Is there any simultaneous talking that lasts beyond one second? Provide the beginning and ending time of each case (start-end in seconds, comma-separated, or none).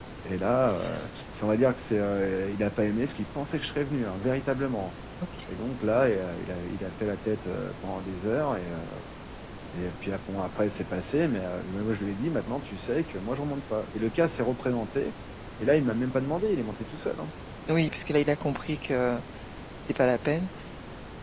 none